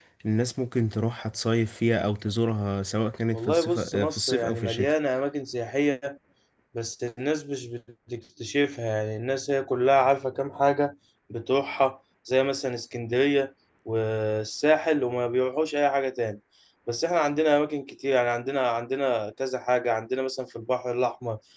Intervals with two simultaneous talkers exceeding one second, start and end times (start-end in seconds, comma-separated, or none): 3.3-4.9